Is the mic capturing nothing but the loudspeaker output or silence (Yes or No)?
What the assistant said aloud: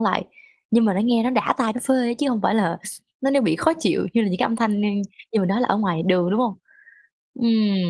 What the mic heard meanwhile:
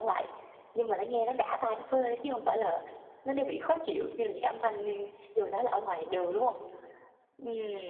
Yes